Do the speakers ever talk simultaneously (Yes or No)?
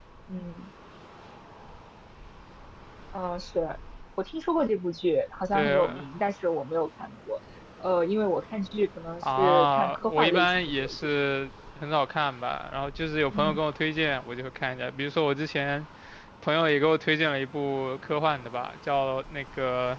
Yes